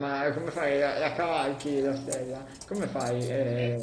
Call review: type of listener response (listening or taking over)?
taking over